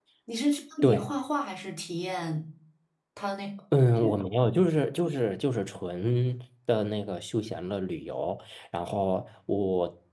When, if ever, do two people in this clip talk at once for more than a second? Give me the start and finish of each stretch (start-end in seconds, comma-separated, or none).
none